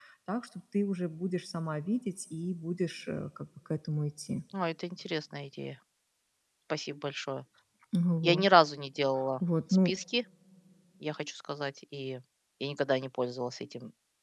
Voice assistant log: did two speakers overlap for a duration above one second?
No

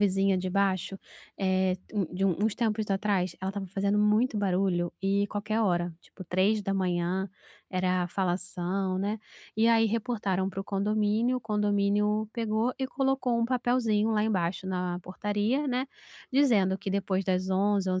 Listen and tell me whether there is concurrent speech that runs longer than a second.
No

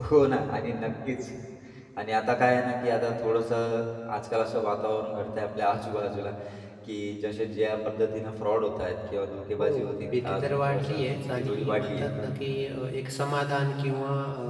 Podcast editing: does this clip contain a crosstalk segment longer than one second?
Yes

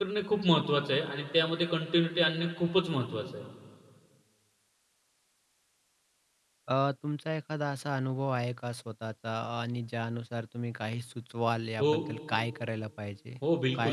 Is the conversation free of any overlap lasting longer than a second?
Yes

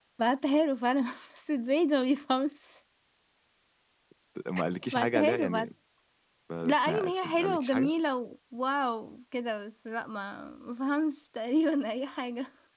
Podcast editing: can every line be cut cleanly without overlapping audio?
No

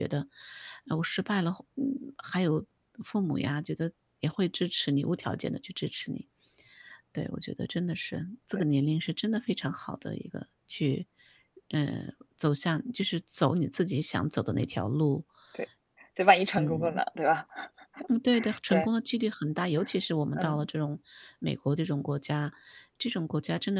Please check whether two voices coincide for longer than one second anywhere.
No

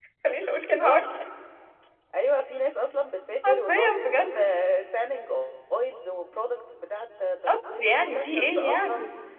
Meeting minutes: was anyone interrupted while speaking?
Yes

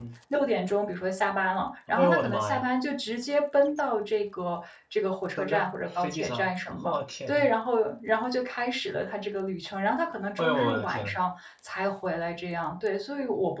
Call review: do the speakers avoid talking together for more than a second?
No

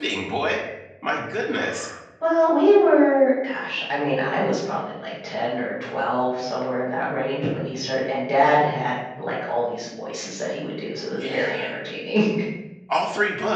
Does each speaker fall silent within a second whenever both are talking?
Yes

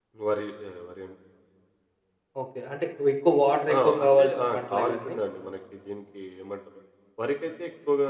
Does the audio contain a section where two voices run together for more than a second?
Yes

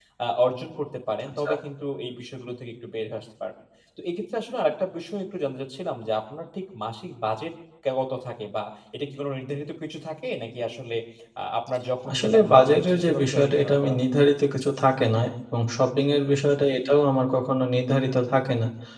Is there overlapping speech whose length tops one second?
Yes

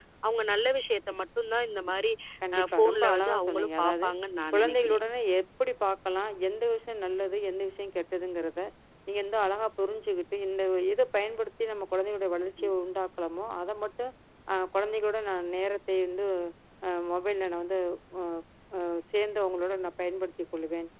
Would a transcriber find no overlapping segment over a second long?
No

